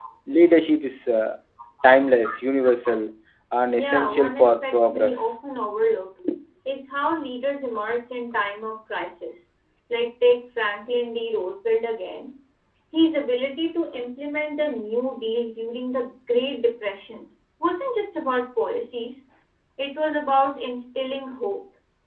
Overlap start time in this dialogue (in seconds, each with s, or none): 3.7 s